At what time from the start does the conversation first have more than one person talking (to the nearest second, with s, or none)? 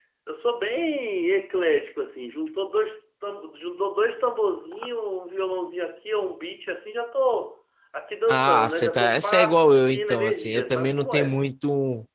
8 s